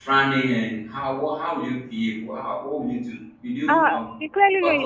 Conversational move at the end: taking over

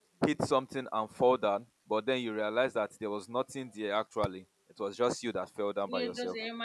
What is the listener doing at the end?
taking over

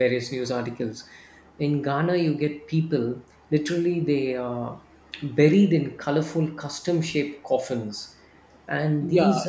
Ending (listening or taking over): listening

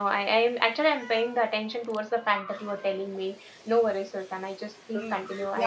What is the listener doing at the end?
taking over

